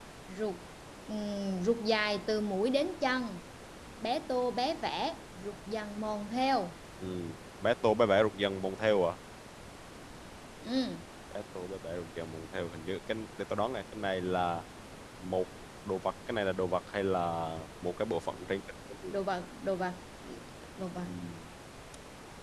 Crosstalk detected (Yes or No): No